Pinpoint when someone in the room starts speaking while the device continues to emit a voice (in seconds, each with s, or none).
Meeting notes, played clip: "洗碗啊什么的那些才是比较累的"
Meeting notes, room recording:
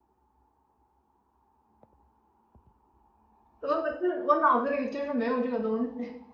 3.6 s